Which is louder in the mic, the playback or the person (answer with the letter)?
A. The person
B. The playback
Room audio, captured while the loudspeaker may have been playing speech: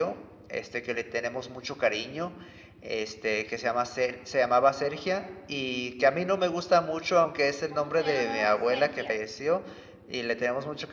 B